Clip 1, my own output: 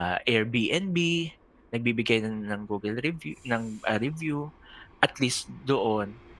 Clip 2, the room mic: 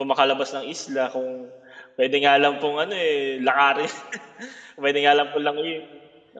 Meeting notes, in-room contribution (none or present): present